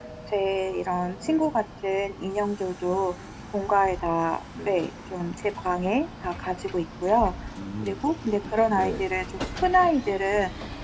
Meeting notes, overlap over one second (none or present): none